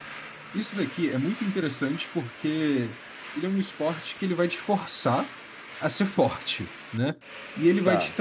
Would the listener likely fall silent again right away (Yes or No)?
Yes